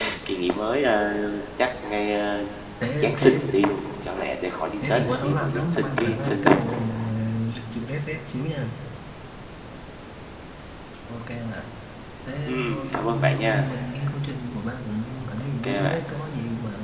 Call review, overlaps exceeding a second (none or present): present